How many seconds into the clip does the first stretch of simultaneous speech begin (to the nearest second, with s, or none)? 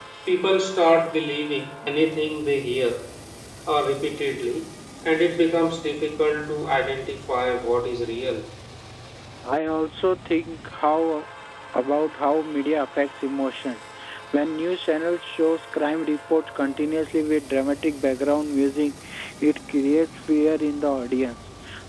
none